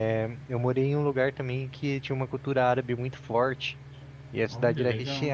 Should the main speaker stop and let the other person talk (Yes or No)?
No